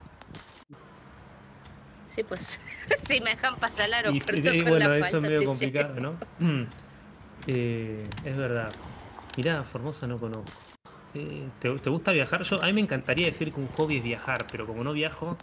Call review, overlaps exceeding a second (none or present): present